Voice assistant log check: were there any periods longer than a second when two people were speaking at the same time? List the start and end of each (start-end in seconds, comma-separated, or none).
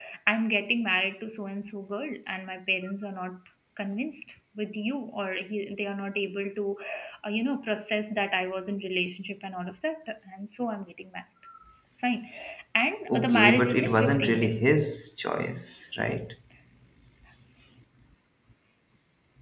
13.1-14.7